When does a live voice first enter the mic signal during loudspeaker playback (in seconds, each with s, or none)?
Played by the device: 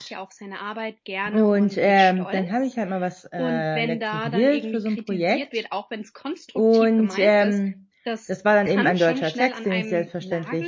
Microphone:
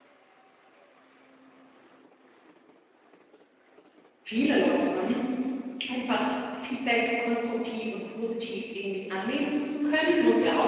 4.2 s